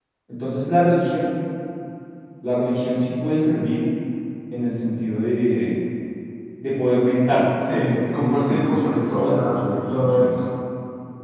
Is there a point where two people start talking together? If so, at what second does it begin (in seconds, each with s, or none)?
7.6 s